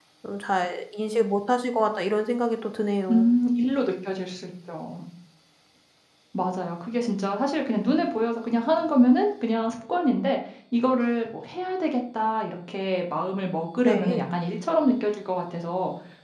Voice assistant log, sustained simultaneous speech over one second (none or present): none